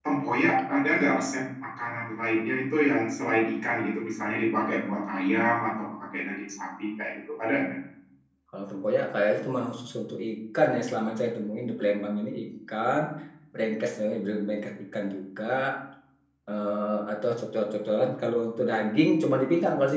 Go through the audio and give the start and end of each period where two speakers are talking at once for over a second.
none

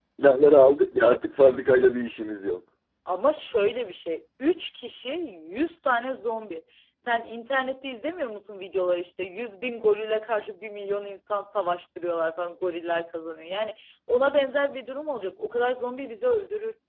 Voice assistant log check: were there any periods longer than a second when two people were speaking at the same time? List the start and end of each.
none

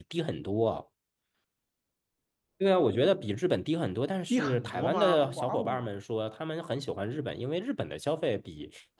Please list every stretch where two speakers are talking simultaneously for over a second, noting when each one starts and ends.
4.3-5.9

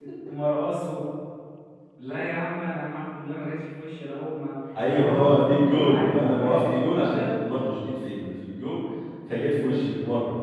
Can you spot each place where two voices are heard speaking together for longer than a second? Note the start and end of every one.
4.8-7.3

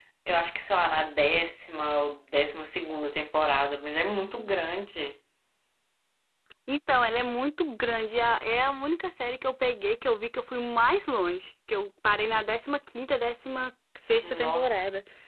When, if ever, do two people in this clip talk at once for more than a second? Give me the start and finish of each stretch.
none

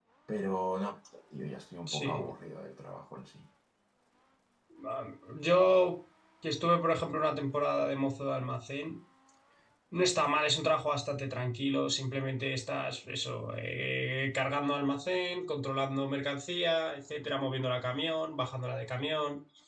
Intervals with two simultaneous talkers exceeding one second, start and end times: none

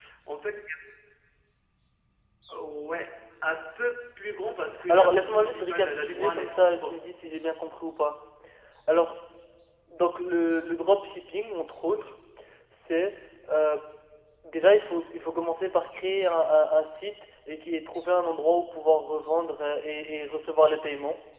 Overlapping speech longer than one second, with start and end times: 4.9-7.0

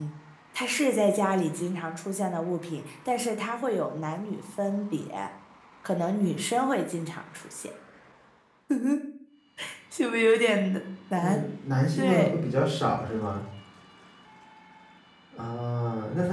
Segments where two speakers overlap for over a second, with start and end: none

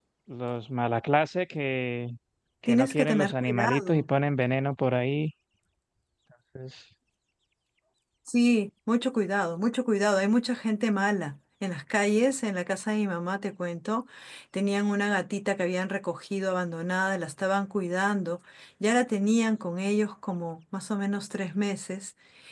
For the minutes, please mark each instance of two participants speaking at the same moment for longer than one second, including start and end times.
2.7-4.1

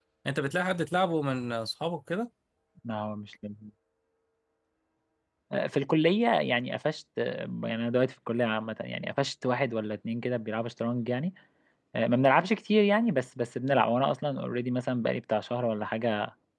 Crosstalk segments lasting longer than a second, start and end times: none

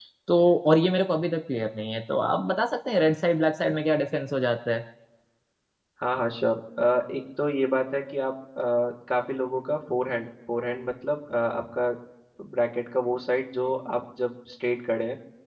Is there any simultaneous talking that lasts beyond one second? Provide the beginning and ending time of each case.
none

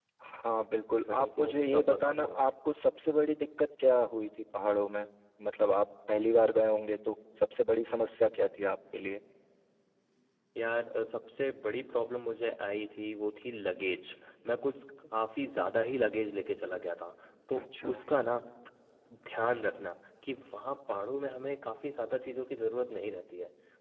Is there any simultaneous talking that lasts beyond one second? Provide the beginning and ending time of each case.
1.1-2.4

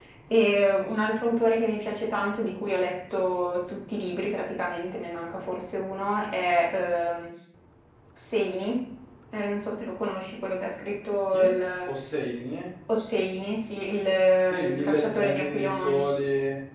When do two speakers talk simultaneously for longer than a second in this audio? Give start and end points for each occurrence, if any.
14.7-16.0

